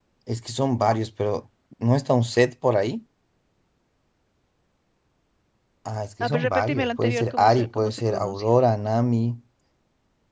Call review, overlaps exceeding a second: present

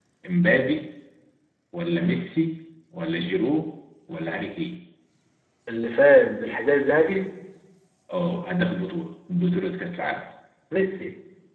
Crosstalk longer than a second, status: none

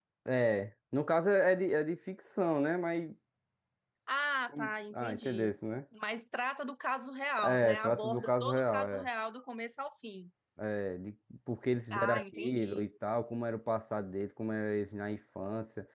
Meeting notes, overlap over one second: present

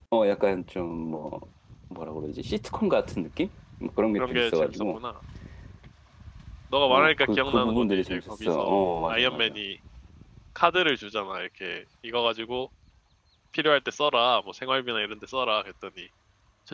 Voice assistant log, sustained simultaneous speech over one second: present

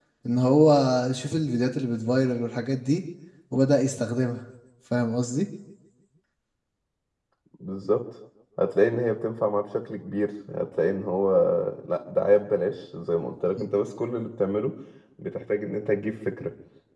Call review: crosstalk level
none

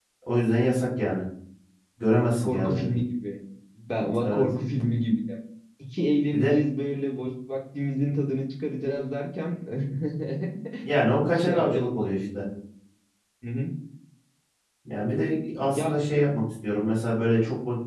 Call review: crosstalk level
present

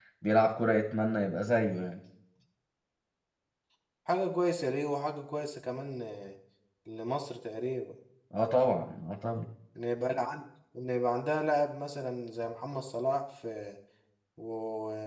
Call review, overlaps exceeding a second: none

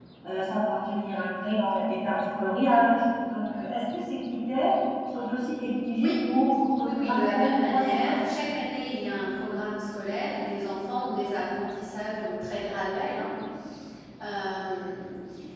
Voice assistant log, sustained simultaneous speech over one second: present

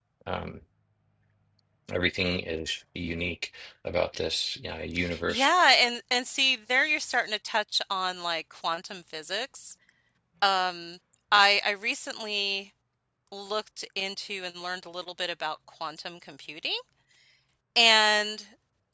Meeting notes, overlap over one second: none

